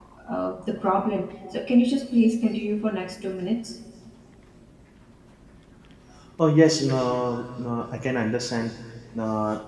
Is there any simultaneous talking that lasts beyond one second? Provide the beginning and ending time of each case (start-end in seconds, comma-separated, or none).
none